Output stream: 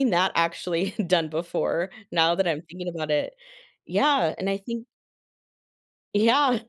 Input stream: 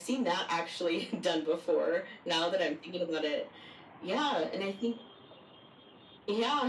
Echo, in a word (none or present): present